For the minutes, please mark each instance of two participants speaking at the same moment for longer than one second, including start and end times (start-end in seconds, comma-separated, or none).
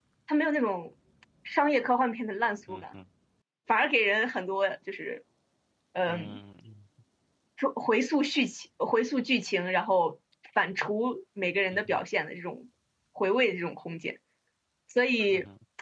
none